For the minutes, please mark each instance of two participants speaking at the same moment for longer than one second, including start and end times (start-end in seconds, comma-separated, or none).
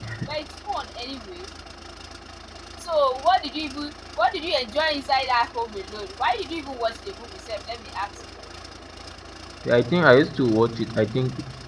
none